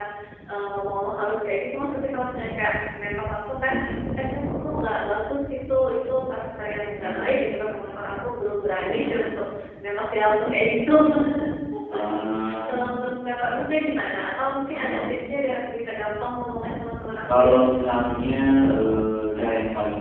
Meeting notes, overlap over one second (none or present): none